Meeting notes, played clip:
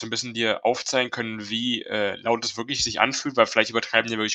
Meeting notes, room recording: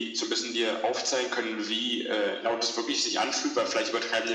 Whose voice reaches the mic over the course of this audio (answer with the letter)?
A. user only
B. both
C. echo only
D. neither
C